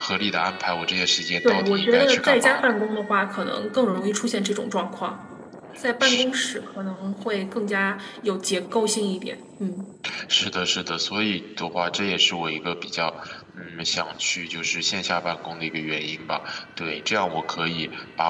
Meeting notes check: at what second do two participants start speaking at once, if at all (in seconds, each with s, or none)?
1.4 s